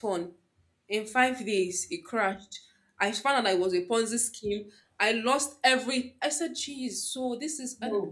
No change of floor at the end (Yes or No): Yes